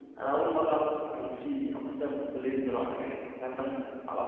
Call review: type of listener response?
listening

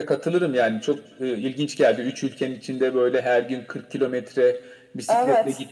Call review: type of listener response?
listening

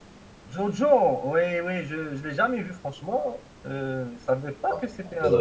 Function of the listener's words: taking over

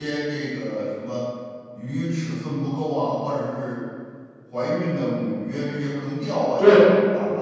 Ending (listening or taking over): taking over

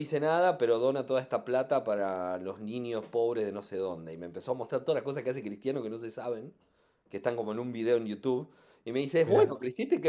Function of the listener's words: listening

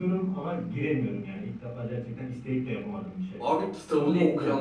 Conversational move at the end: taking over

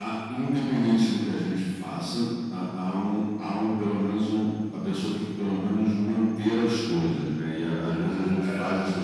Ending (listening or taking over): listening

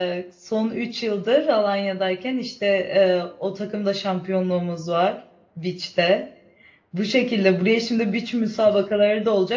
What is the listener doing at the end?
listening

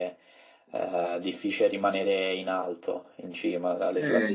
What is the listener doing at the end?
taking over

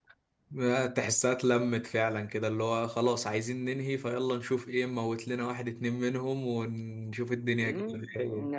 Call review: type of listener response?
taking over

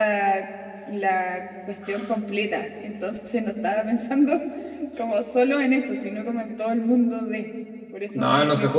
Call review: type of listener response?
taking over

